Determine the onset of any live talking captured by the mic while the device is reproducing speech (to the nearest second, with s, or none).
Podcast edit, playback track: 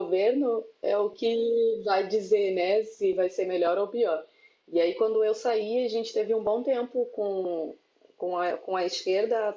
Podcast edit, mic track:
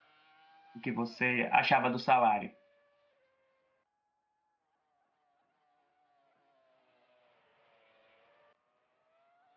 1 s